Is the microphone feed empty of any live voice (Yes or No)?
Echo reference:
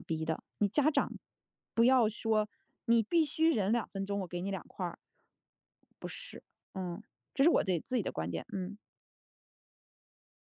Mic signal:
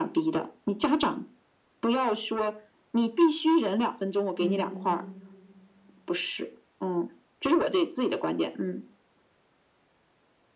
No